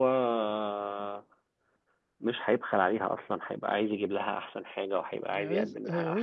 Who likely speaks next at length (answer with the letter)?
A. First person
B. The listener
B